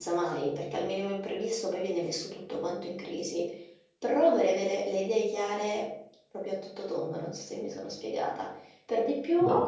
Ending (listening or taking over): listening